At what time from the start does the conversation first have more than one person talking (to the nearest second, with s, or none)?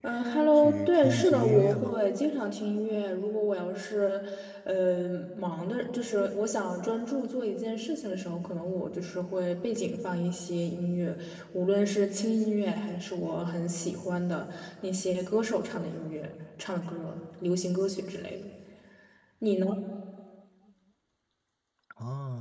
1 s